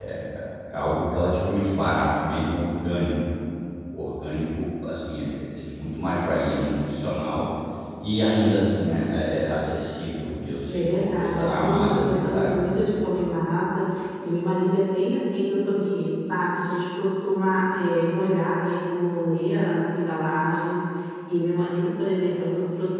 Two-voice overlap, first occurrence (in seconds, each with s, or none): 10.7 s